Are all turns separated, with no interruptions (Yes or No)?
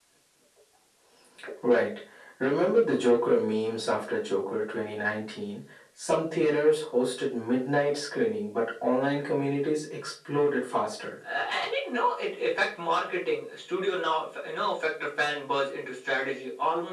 Yes